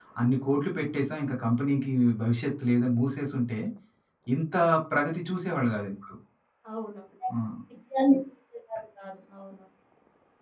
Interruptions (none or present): none